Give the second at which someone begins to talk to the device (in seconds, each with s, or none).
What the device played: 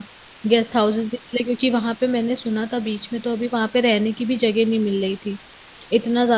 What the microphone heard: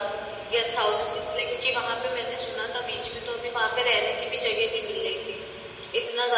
none